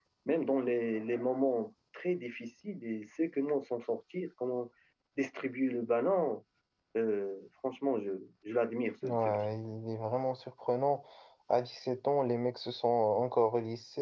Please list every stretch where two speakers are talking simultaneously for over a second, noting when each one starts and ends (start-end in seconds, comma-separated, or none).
none